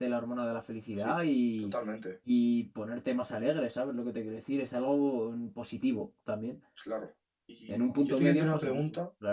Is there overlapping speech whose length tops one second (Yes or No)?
Yes